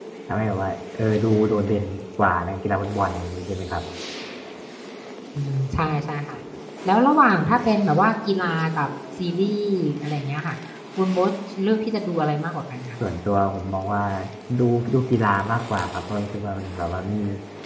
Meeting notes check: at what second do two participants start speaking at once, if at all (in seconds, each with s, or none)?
none